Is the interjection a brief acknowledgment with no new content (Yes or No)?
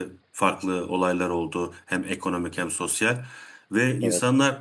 Yes